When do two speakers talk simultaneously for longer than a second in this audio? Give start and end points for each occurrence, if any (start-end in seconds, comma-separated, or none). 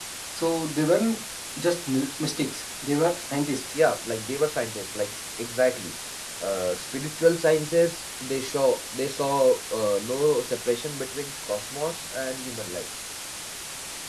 none